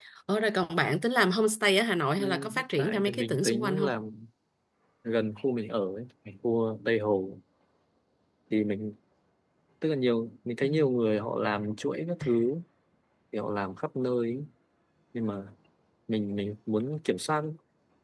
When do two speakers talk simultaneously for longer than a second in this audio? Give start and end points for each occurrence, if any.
2.2-3.9

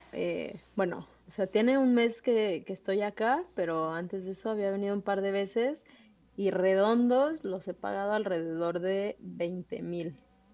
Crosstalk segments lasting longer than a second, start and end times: none

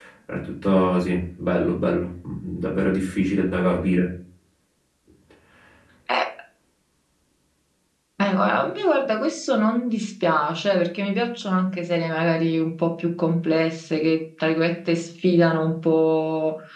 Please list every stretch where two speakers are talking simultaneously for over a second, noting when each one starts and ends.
none

